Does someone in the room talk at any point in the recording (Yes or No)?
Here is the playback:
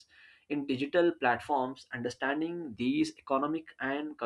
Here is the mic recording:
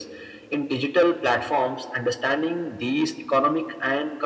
No